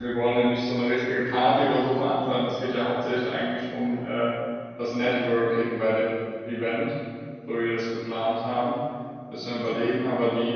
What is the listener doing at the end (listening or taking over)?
listening